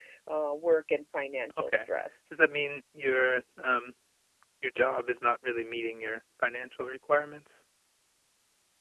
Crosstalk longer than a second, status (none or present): none